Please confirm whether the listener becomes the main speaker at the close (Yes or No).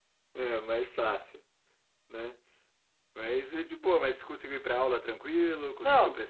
Yes